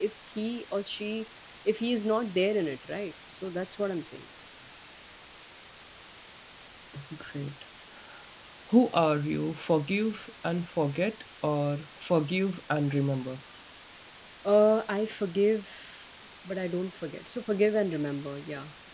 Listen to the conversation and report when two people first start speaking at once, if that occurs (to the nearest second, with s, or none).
none